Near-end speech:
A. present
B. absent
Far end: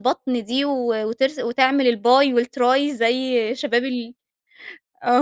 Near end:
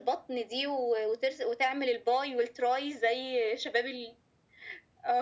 B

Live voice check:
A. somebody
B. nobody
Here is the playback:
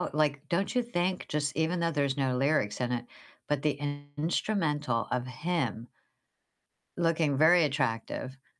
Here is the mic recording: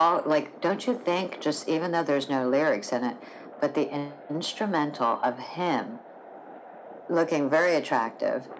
B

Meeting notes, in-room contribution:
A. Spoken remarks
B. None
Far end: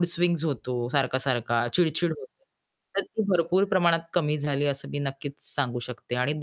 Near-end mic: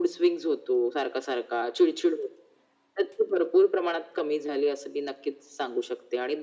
B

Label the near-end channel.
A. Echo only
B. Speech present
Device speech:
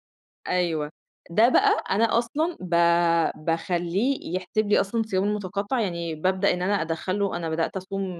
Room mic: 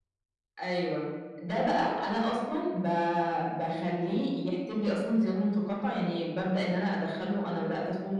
A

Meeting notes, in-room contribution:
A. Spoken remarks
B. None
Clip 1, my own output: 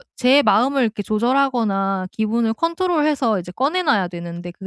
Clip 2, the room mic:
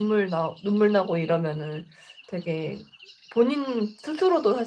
A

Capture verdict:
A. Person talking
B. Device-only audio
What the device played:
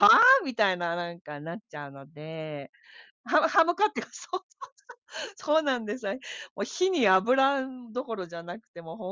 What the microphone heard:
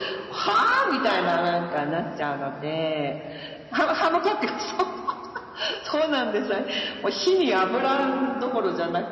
B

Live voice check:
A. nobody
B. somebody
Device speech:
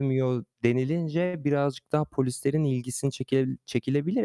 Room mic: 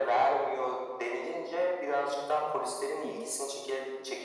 B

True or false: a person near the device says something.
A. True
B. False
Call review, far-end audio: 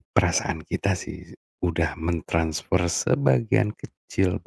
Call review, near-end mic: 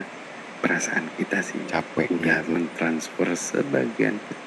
A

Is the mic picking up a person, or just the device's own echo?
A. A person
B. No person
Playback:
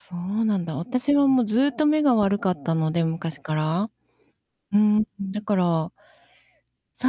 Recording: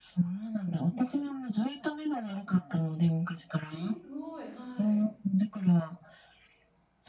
A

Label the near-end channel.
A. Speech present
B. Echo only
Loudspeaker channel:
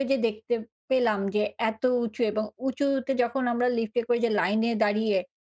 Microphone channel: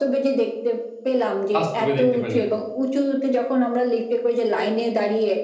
A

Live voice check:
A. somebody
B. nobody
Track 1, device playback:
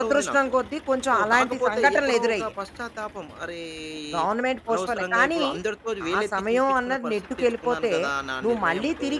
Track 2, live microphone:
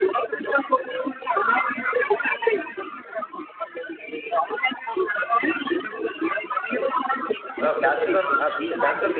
A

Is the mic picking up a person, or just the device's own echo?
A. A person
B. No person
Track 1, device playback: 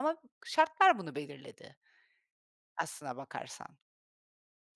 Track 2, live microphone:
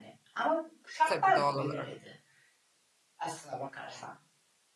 A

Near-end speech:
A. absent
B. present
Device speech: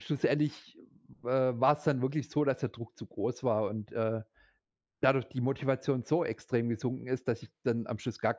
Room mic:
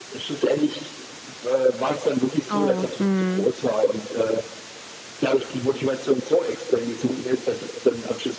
B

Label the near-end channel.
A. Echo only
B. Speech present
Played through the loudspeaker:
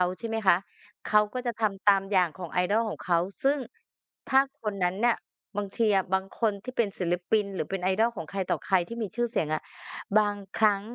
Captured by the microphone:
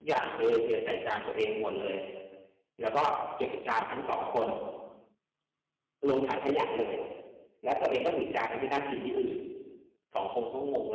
B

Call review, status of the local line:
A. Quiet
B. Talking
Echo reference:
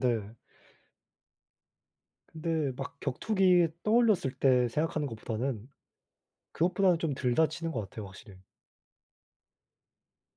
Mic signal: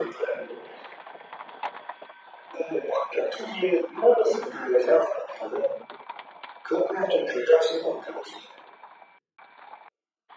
A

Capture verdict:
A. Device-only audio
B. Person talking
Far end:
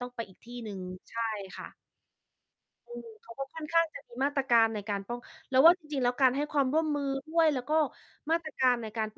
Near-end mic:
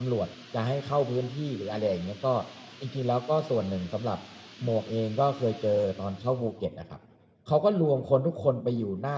B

